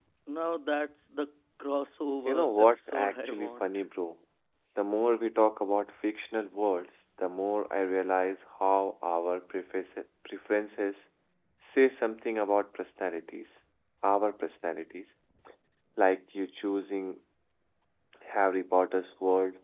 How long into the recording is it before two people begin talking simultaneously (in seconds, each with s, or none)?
2.3 s